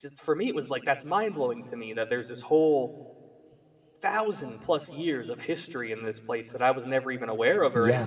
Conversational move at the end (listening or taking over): listening